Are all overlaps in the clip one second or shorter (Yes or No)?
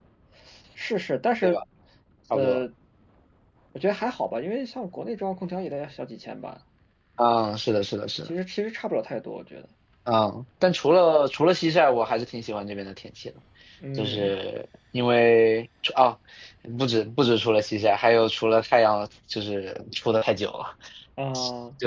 Yes